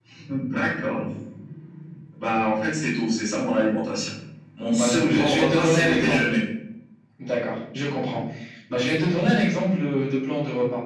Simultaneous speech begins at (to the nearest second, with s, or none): 5 s